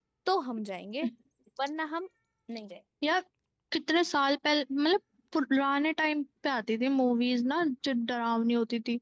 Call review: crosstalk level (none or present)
none